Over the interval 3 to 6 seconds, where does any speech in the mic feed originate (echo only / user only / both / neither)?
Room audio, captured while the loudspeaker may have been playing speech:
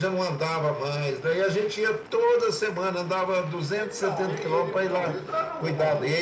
both